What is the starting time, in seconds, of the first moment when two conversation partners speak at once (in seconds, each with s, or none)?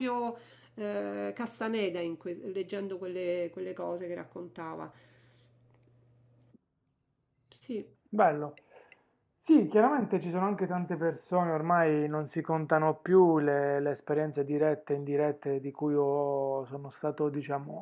none